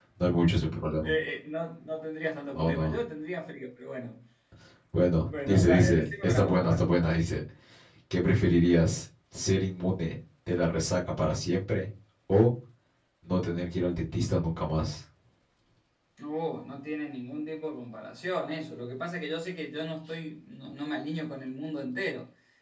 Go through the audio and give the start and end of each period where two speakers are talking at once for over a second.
5.2-6.9

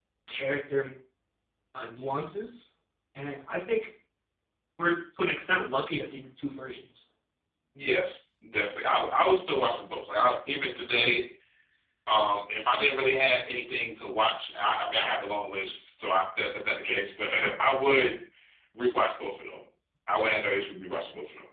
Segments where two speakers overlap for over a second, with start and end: none

